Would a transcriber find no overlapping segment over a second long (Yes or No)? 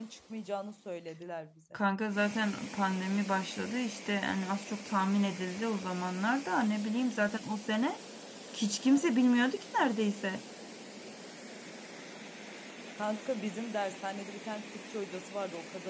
Yes